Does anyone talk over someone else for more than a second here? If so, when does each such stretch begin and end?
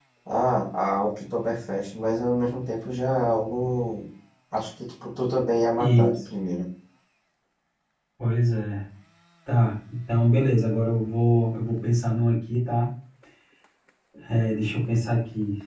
none

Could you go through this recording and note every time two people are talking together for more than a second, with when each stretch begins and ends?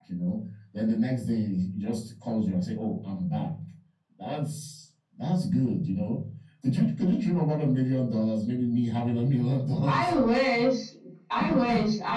none

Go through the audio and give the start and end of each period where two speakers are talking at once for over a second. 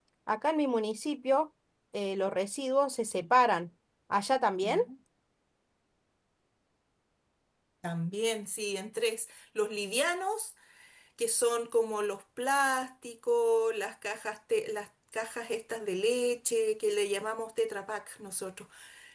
none

